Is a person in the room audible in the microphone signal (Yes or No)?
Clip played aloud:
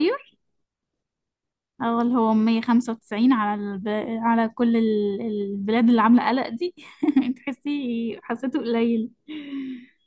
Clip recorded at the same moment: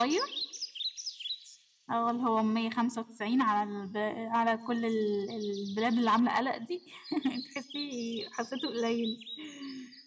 No